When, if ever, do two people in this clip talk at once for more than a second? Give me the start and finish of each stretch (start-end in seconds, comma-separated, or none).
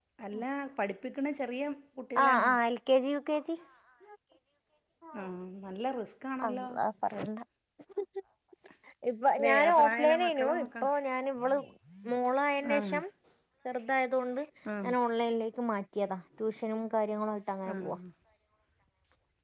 9.4-10.9